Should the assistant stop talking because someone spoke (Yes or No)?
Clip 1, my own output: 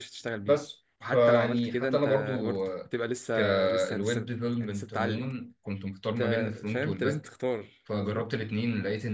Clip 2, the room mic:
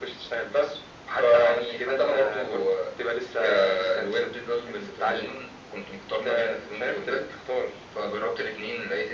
No